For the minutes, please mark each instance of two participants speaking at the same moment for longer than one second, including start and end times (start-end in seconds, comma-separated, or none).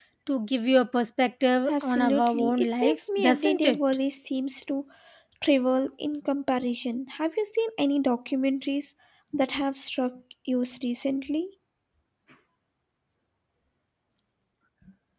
1.7-3.8